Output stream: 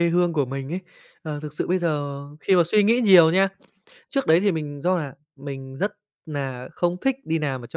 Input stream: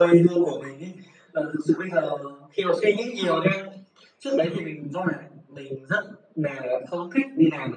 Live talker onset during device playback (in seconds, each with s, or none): none